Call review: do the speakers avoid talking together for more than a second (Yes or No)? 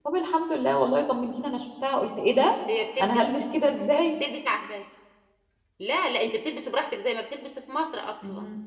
Yes